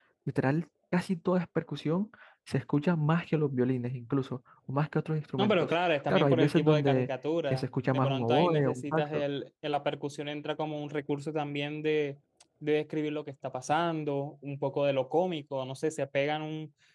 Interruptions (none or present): present